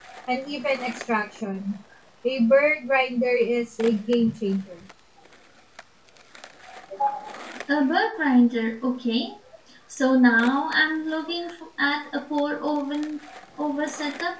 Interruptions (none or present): none